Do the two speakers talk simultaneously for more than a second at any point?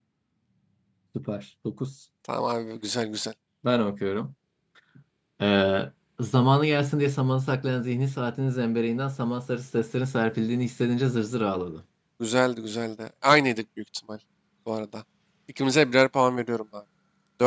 No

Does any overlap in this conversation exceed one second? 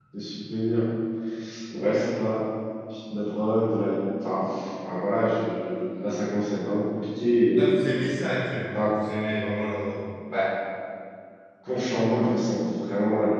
No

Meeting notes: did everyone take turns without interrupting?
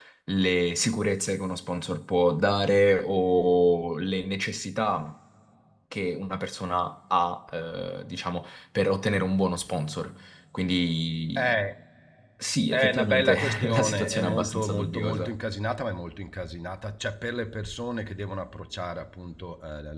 No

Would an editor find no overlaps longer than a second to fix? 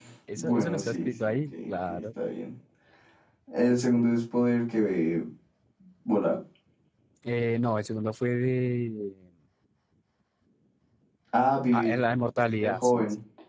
No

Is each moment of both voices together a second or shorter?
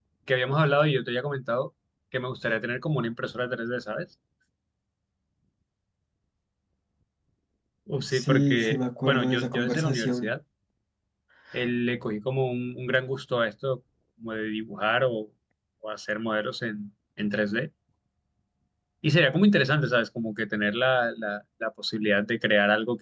No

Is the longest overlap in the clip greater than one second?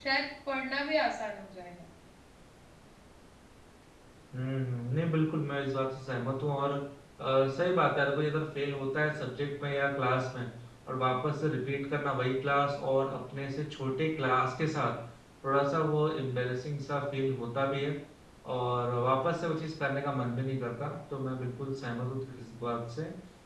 No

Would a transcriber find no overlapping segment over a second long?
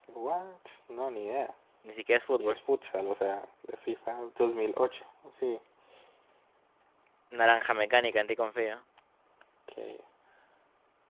Yes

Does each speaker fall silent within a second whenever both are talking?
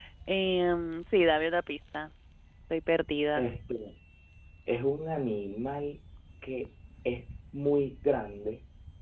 Yes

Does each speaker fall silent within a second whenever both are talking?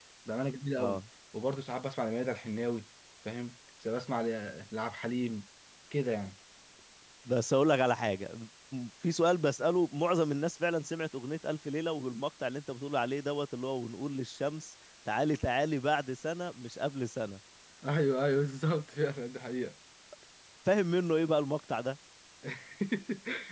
Yes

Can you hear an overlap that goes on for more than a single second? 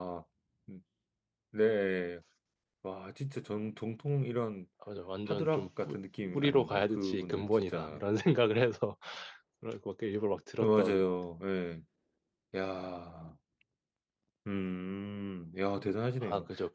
Yes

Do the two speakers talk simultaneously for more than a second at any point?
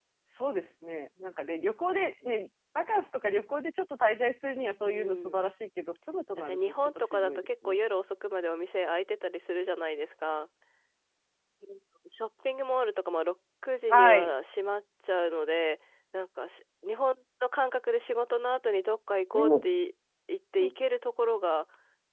Yes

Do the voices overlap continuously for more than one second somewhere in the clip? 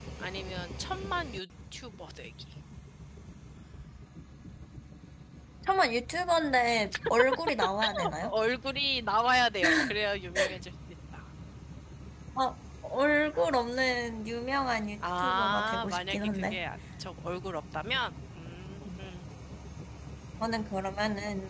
Yes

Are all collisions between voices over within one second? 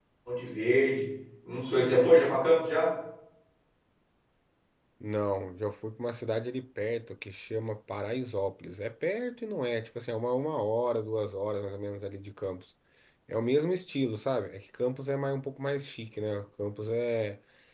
Yes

